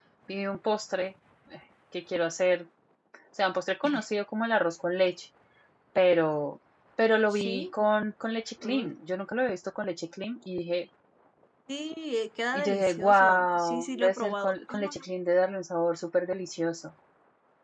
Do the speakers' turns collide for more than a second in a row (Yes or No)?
Yes